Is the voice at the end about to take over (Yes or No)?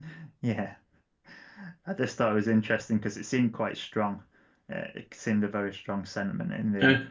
Yes